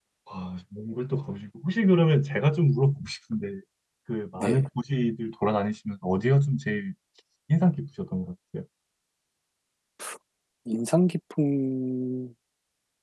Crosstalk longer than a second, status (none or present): none